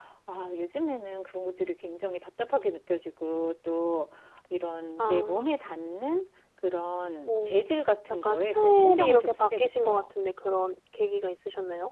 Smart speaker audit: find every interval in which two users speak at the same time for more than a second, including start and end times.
8.1-10.1

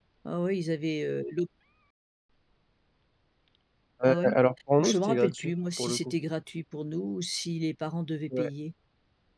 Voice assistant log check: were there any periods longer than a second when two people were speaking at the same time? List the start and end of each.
4.8-6.1

